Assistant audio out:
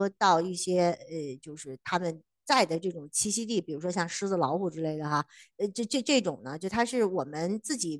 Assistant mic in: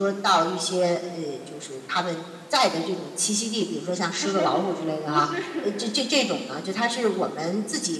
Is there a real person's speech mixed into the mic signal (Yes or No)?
Yes